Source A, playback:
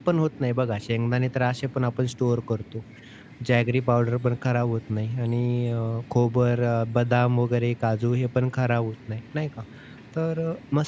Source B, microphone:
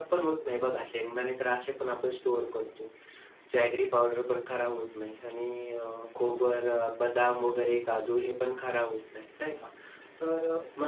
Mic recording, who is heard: echo only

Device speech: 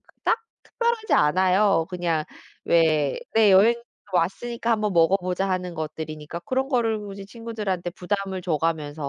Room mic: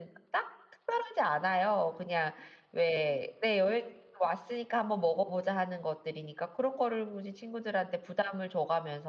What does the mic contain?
echo only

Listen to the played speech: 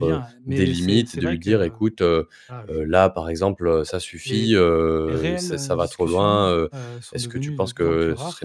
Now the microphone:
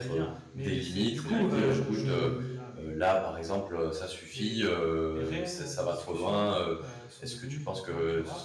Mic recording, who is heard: both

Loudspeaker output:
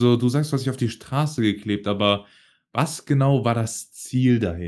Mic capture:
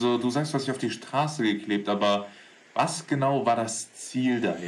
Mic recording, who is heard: echo only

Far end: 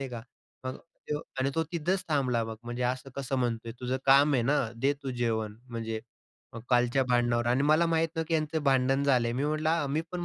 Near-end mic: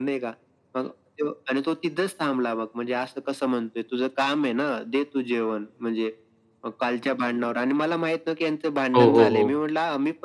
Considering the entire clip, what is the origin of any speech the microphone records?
both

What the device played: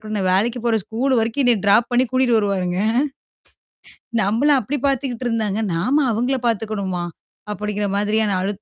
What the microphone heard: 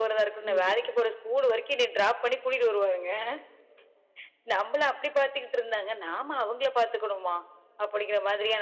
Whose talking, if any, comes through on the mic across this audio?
both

